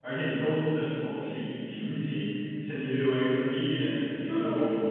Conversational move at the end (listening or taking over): taking over